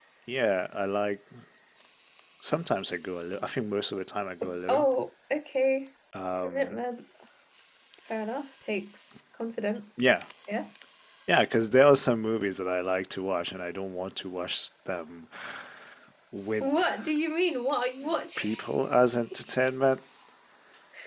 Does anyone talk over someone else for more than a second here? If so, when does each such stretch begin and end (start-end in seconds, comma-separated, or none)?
none